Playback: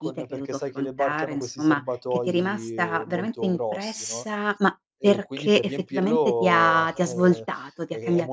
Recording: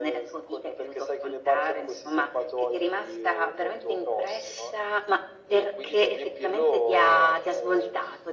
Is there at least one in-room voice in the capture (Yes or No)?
No